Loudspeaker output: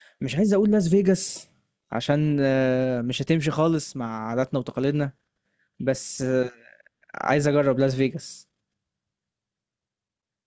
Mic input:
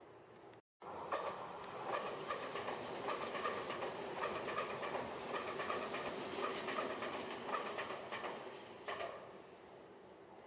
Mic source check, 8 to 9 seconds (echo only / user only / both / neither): neither